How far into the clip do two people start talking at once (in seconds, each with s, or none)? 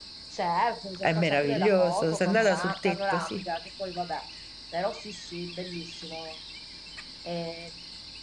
1.0 s